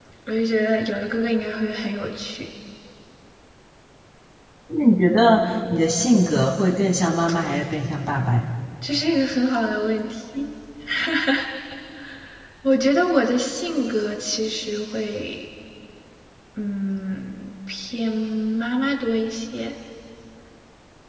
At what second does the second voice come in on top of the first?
none

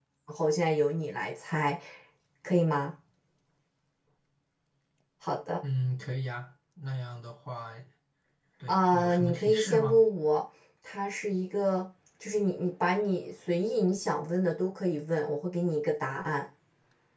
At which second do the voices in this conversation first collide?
8.7 s

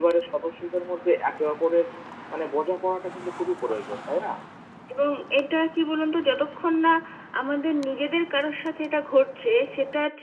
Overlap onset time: none

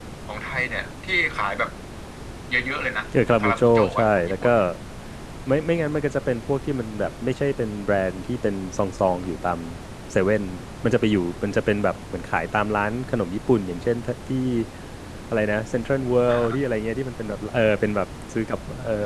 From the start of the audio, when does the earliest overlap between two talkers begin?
3.3 s

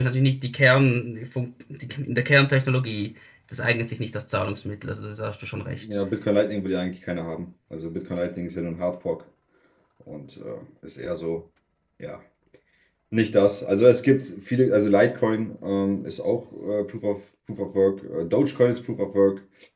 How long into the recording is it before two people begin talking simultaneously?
none

